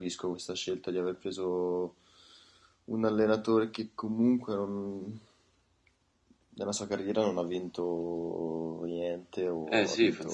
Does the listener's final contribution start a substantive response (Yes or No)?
Yes